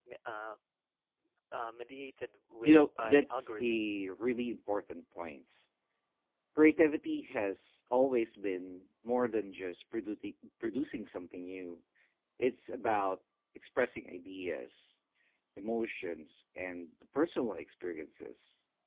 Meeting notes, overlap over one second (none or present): present